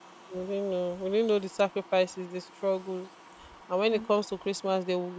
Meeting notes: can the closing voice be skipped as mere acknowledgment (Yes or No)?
Yes